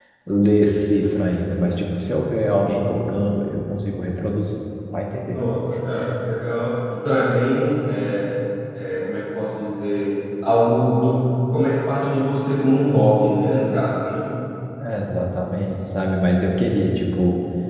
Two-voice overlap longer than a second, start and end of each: none

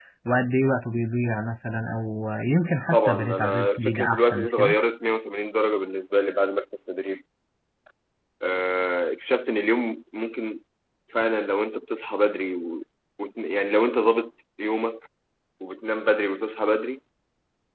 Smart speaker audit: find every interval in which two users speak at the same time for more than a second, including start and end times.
2.9-4.8

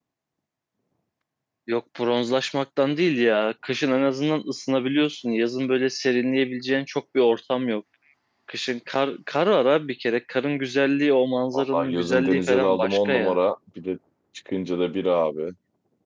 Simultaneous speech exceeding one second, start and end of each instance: 11.5-13.3

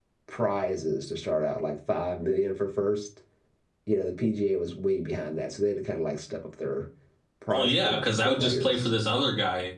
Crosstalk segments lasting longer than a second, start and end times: 7.5-8.9

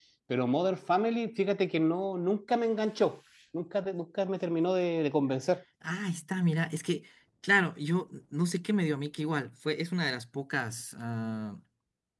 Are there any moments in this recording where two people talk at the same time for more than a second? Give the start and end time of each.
none

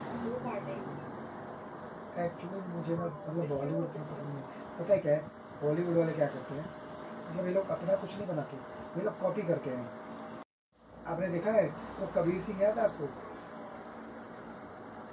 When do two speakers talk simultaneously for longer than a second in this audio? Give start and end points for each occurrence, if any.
2.9-4.4

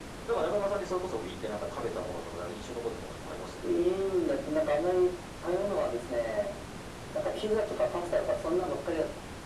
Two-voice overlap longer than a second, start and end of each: none

